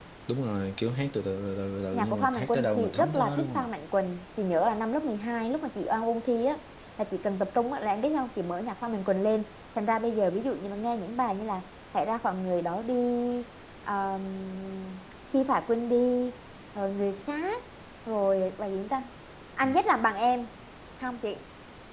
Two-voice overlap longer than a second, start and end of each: 1.9-3.7

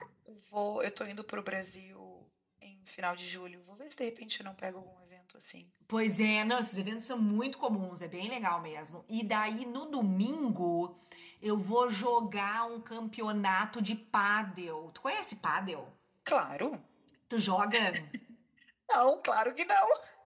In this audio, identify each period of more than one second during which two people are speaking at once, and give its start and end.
none

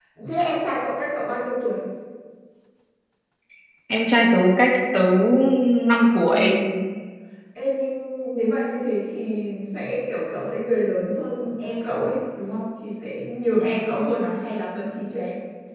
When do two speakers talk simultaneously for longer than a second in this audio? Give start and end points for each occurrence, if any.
none

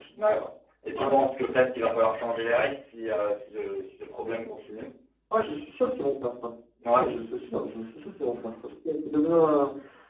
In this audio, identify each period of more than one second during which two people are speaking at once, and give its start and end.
none

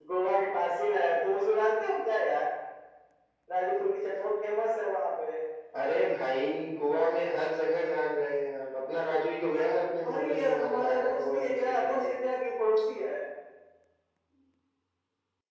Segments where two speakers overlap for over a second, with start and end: 10.1-12.0

